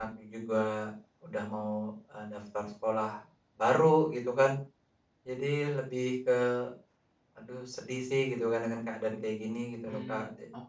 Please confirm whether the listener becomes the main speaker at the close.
Yes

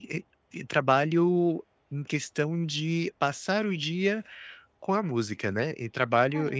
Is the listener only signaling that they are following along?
Yes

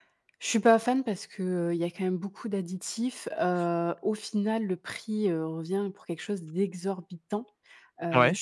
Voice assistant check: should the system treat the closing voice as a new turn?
No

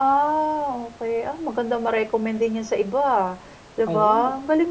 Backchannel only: Yes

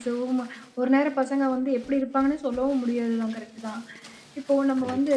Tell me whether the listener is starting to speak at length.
No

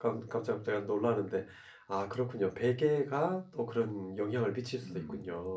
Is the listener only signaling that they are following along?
No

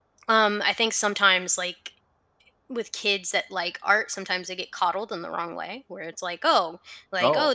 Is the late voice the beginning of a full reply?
No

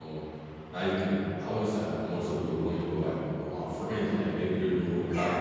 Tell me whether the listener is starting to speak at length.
No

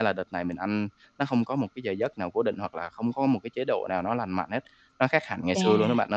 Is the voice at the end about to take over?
Yes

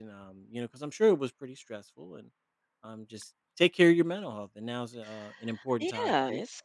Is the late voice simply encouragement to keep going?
No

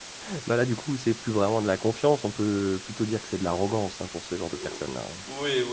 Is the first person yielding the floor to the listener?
Yes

